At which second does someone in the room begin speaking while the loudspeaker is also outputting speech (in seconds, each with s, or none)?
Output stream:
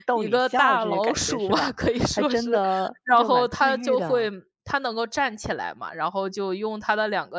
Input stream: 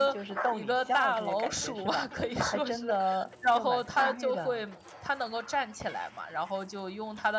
none